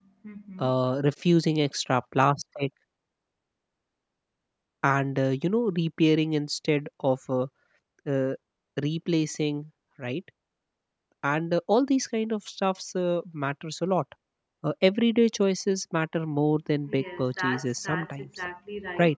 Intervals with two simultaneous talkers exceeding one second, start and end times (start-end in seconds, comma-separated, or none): 16.9-18.3